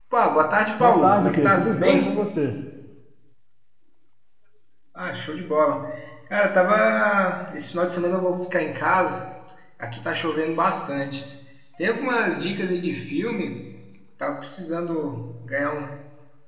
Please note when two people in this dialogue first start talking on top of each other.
1 s

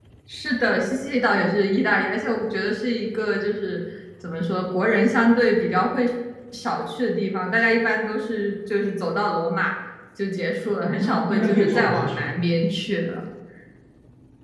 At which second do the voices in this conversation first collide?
11 s

